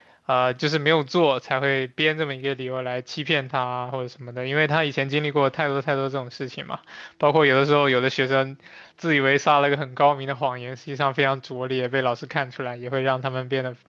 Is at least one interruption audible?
No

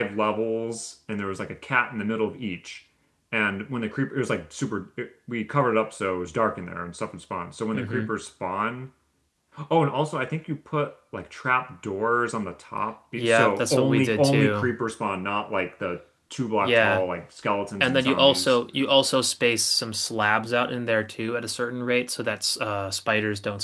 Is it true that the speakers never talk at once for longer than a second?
No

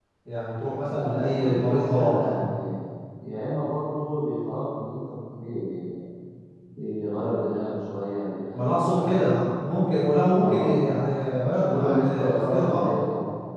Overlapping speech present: Yes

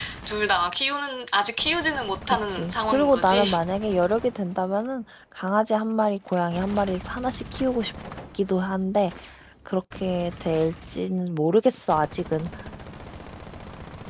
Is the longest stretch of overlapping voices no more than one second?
No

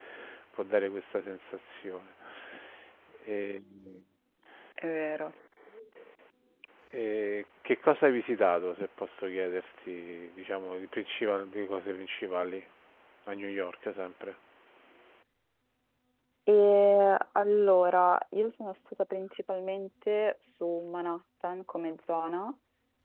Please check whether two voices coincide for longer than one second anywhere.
No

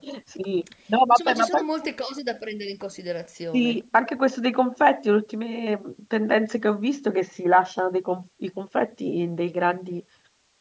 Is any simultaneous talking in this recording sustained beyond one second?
No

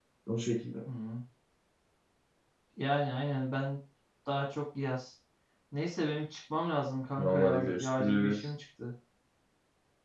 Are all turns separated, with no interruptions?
No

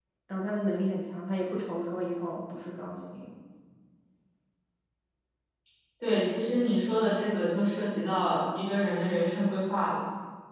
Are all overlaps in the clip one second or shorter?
Yes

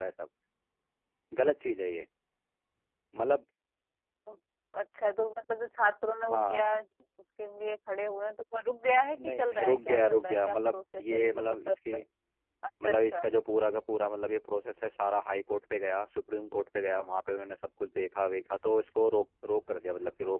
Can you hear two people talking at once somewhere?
Yes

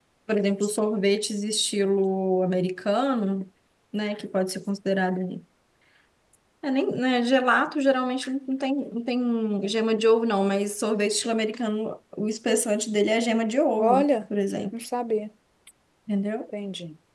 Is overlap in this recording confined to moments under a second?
Yes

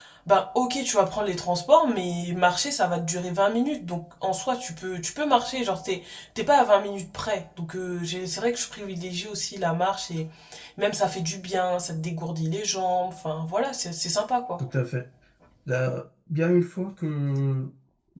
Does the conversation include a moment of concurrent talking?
No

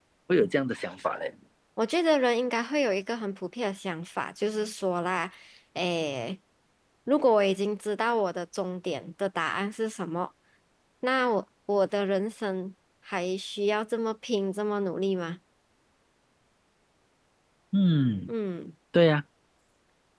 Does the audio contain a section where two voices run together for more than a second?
No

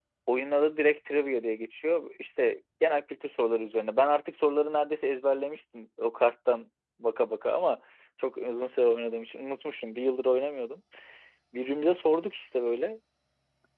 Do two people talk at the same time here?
No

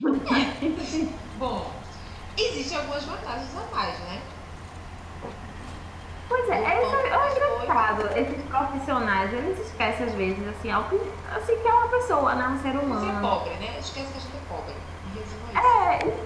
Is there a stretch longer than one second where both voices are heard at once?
Yes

